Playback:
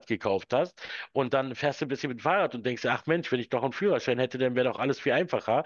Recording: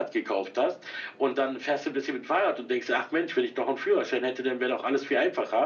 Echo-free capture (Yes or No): No